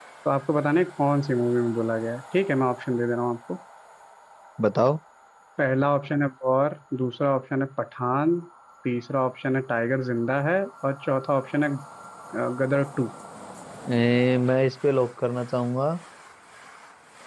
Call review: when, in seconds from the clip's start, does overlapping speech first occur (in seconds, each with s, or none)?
none